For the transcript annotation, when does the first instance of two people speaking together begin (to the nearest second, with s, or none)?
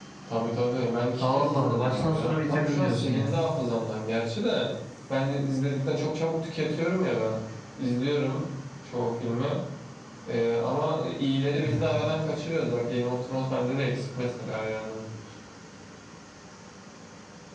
1 s